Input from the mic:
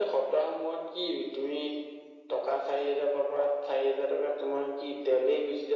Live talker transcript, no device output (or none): none